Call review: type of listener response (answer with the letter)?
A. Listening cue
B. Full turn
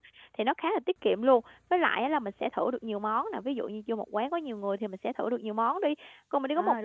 A